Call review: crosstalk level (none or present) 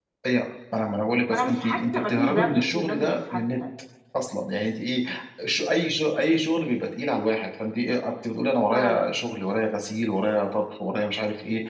present